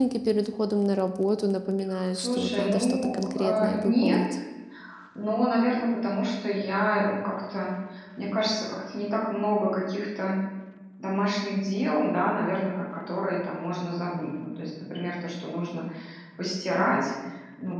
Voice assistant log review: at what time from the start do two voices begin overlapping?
1.9 s

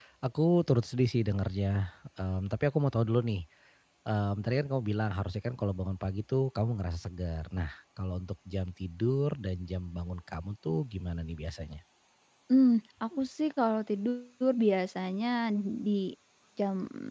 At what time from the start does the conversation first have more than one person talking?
none

